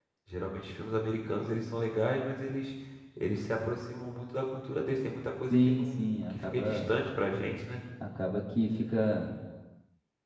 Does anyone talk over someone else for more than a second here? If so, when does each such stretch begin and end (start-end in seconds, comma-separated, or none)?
5.5-6.9